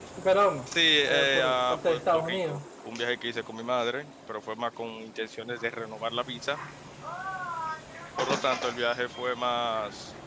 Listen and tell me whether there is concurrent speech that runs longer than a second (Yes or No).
Yes